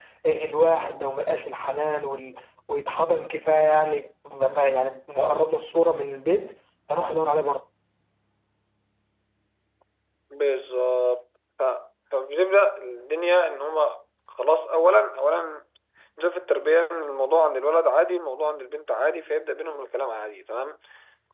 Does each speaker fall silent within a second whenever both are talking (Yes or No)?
Yes